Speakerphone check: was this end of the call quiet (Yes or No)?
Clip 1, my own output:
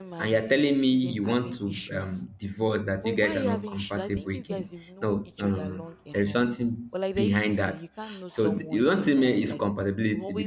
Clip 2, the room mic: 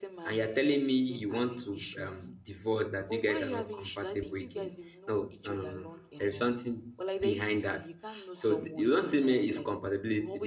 Yes